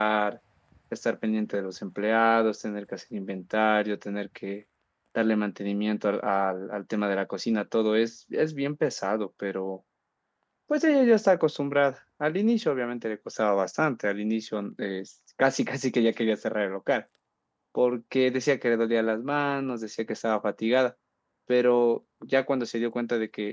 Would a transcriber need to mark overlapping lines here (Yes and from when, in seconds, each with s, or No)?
No